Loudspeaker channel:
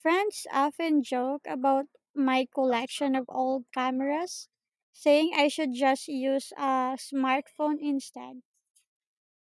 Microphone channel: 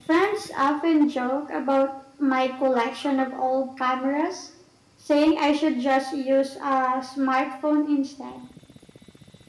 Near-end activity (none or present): none